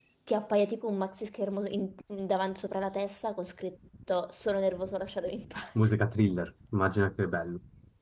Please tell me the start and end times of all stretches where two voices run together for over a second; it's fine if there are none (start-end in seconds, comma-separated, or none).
none